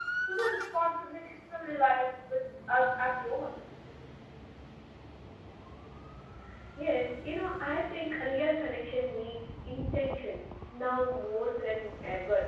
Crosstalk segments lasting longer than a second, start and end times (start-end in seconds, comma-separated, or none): none